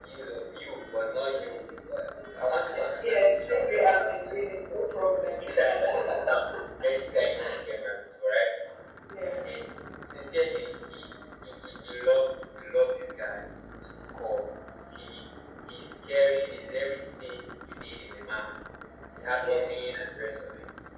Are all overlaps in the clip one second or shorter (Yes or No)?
No